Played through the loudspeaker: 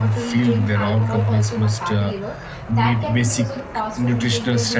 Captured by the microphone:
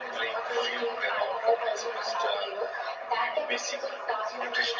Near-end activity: none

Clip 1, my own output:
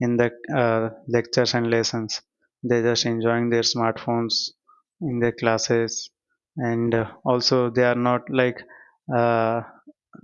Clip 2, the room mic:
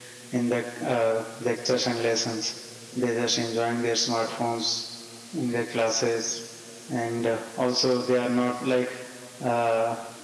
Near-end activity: none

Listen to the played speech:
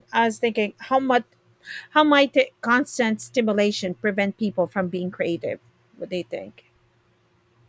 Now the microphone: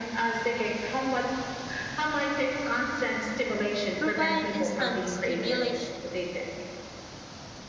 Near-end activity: present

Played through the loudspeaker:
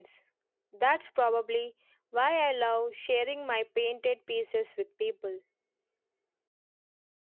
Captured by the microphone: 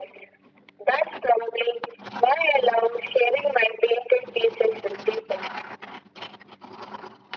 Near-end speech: none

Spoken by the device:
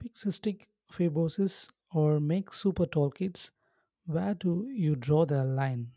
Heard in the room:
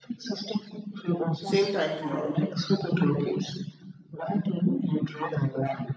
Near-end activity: present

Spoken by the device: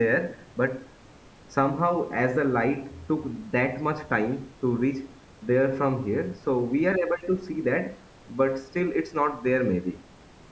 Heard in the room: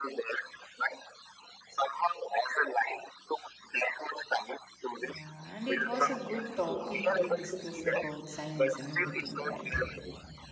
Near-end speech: present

